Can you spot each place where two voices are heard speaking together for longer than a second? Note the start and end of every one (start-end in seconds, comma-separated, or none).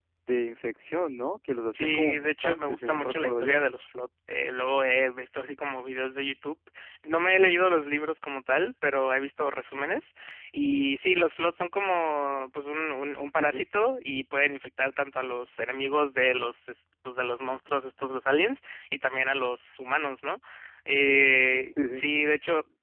1.7-3.6